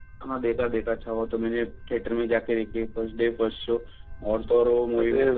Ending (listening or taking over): listening